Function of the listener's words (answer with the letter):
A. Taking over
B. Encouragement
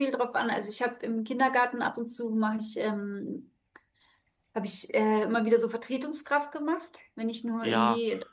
A